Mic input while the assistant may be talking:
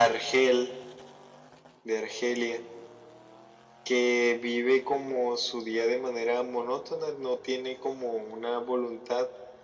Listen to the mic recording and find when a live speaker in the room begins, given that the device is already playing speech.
none

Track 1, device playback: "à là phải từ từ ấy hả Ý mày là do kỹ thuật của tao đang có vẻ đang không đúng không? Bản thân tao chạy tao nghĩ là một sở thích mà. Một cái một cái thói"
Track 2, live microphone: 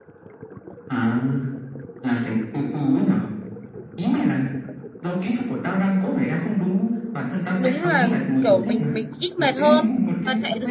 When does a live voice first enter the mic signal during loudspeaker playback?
8 s

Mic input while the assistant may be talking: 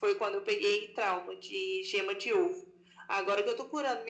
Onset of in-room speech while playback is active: none

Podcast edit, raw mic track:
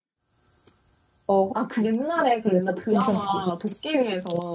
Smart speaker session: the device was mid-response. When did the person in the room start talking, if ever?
1 s

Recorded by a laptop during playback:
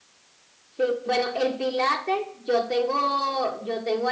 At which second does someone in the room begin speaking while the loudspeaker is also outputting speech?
none

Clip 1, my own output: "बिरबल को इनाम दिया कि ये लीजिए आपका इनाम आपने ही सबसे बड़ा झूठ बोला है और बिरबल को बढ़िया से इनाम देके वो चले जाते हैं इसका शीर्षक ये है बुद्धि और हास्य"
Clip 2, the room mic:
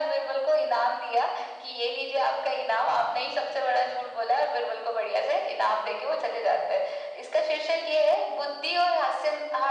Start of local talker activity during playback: none

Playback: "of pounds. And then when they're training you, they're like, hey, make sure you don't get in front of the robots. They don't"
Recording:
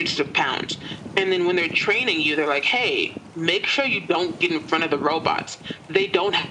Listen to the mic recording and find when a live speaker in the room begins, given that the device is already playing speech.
none

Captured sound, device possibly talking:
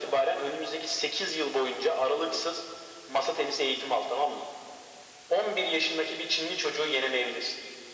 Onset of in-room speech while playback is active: none

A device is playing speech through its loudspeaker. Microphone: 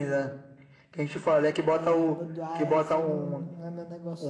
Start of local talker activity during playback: 2 s

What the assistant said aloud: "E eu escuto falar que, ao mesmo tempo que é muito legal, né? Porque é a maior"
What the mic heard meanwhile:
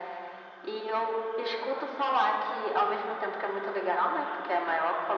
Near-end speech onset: none

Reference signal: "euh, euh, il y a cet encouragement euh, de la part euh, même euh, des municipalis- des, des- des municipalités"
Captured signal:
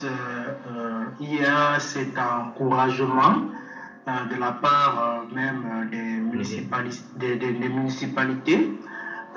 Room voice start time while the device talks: 6 s

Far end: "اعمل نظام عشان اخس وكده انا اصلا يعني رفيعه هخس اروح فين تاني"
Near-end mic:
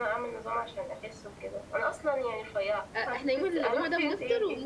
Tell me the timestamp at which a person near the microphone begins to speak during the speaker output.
3 s

